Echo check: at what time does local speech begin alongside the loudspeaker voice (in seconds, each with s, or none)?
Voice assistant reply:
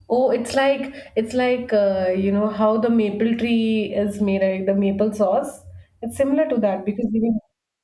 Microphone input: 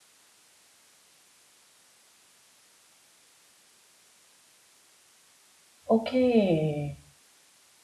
6.0 s